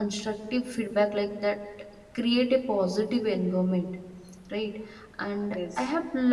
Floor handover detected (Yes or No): No